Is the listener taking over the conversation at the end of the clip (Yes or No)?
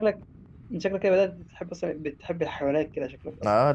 Yes